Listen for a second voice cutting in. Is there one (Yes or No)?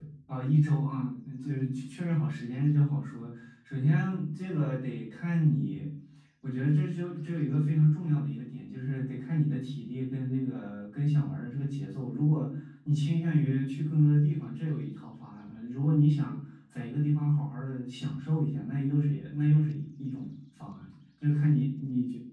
No